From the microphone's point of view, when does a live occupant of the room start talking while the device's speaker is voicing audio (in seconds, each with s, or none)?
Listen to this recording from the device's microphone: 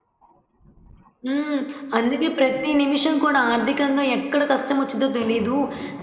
1.2 s